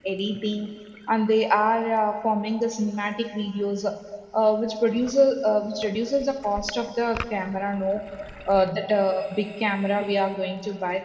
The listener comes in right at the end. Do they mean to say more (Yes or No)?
No